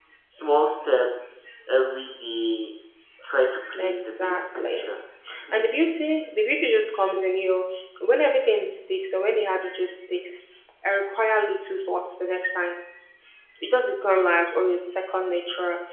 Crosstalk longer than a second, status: present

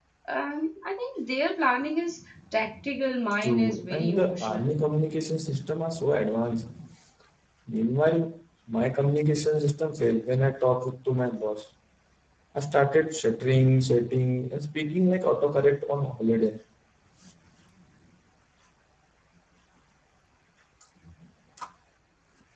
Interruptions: present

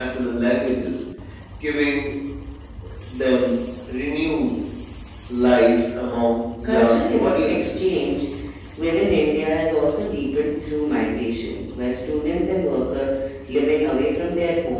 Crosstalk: present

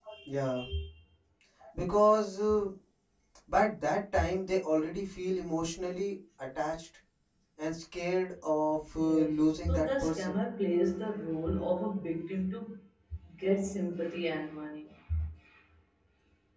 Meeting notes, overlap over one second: present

